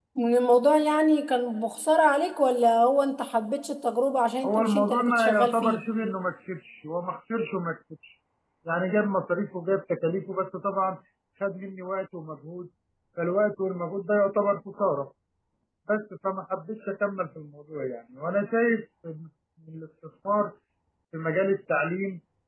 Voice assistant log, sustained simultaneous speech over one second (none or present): present